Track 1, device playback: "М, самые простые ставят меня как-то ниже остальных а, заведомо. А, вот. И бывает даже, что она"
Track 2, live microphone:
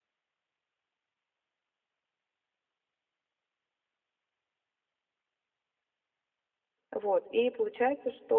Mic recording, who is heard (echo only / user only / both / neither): user only